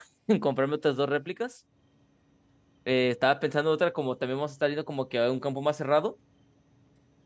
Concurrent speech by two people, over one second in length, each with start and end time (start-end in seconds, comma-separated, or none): none